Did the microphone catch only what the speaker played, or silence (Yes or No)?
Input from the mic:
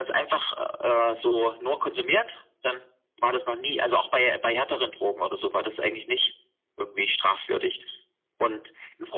Yes